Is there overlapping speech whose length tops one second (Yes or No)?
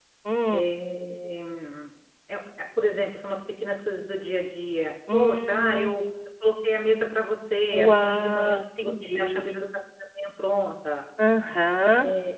Yes